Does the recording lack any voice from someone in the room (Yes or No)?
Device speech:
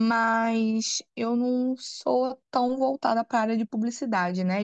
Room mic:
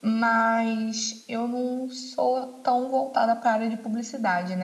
Yes